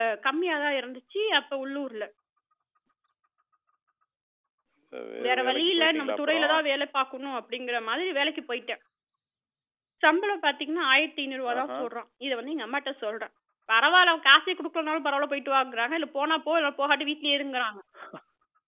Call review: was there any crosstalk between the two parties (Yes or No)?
Yes